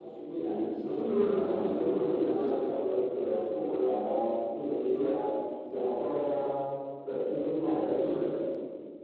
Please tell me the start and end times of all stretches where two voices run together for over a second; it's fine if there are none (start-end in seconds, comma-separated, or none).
0.8-2.6